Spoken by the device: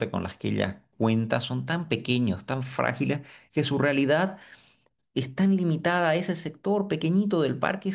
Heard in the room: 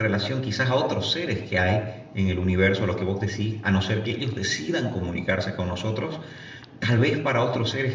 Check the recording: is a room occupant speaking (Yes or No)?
Yes